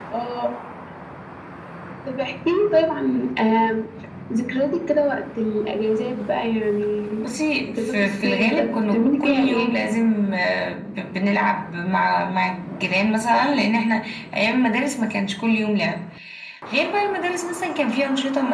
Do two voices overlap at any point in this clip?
Yes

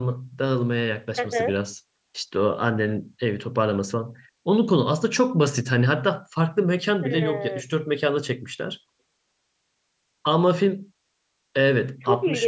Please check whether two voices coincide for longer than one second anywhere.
No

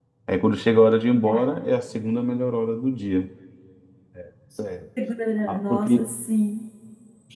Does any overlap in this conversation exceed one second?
No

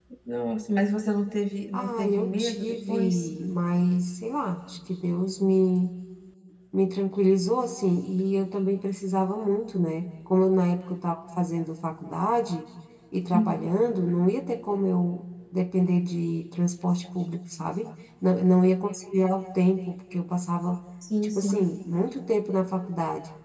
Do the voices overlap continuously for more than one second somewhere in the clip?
Yes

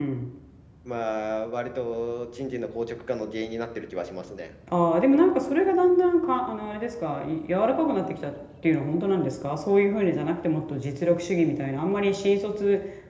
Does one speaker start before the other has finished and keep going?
No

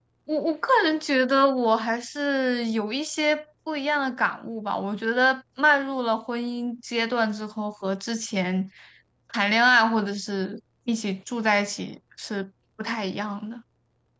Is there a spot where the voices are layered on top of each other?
No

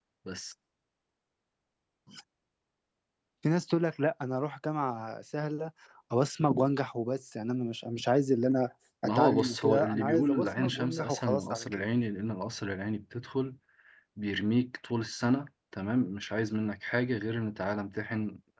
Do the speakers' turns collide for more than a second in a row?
Yes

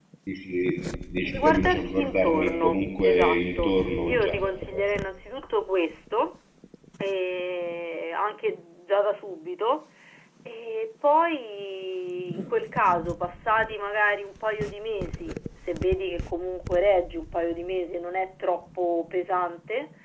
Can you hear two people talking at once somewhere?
Yes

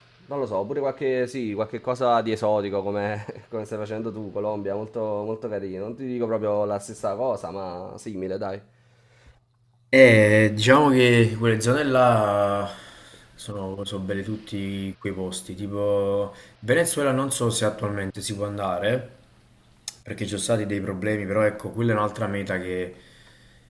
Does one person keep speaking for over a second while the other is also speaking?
No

